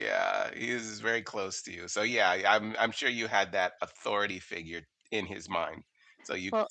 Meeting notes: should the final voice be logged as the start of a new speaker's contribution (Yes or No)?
No